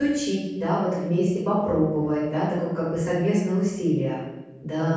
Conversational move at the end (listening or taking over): taking over